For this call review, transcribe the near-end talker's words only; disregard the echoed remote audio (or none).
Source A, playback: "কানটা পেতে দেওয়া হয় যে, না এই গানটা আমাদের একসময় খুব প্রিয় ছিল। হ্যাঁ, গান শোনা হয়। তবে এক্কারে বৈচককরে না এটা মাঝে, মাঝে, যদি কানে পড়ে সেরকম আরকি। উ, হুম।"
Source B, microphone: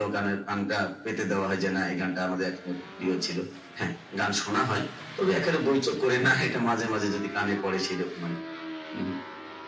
none